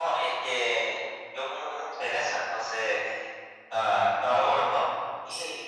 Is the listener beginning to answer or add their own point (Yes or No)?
No